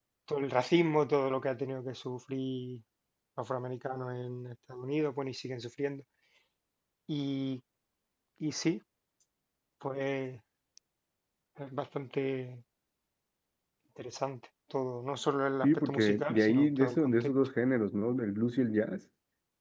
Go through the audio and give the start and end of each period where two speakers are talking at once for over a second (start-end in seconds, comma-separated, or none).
15.6-17.3